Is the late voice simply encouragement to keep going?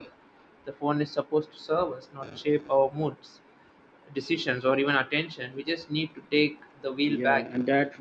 No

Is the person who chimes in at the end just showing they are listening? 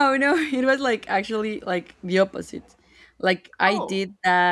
Yes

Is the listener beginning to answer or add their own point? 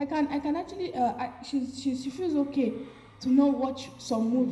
No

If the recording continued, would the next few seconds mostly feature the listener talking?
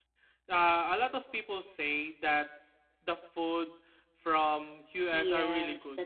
Yes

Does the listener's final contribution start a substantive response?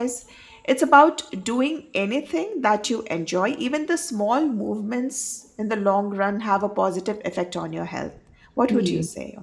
Yes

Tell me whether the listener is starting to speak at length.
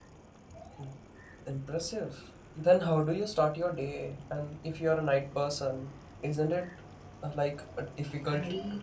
Yes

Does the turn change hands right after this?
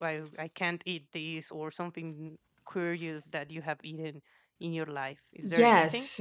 Yes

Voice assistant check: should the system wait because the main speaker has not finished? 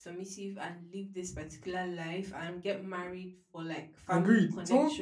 No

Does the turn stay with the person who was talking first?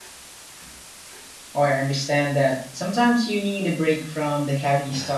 No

